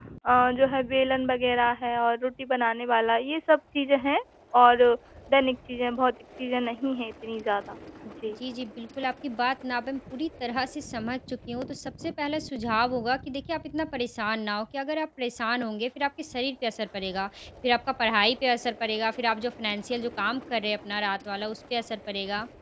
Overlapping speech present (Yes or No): No